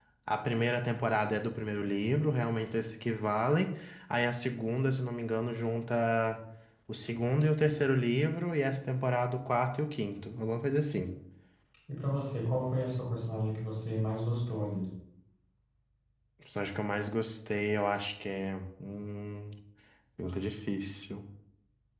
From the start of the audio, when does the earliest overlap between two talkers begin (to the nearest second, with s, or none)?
none